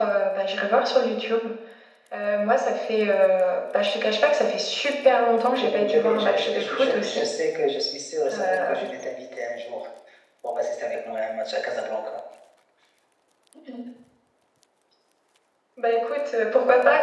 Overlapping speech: Yes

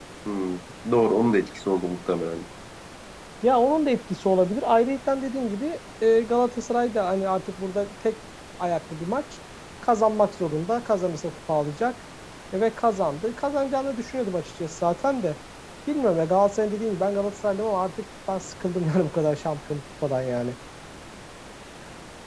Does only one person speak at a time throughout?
Yes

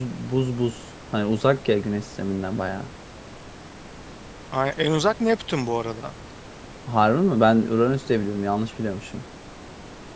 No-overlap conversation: Yes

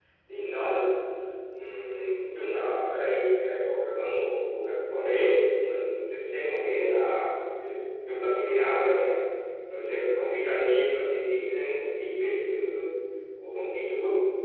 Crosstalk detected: No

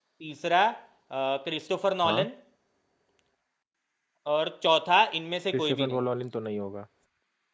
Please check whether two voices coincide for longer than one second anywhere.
No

